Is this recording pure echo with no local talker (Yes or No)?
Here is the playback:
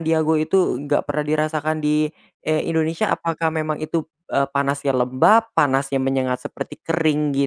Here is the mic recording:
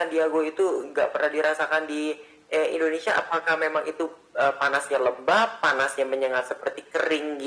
Yes